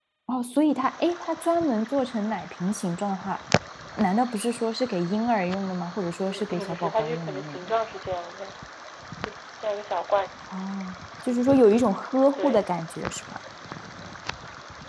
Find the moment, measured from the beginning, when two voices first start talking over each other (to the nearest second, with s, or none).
6 s